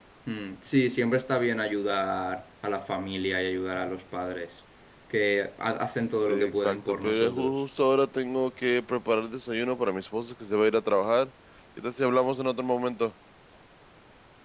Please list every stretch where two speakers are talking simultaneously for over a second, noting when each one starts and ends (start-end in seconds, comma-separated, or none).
6.3-7.6